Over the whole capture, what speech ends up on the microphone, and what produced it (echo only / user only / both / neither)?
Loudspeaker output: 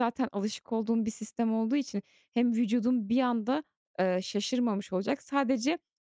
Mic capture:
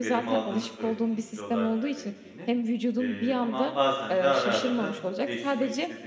both